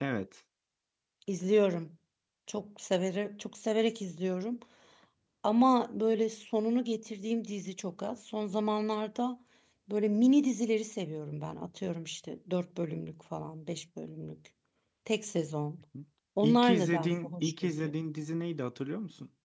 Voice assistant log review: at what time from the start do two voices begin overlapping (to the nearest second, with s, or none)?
16 s